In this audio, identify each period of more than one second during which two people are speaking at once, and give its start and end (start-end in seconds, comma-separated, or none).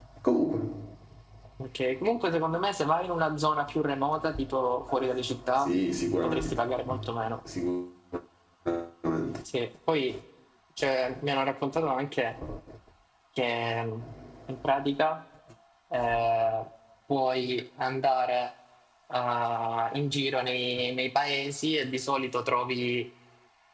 none